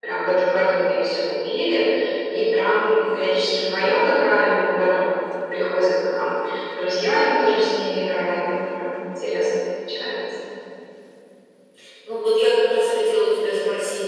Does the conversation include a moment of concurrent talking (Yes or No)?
No